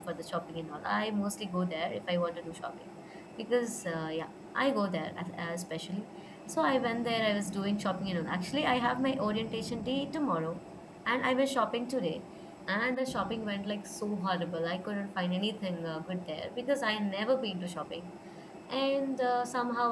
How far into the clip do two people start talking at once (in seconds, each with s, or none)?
none